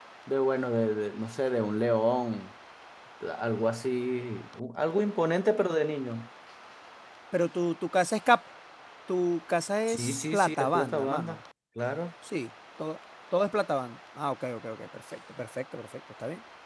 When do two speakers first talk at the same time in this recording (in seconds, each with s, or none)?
9.9 s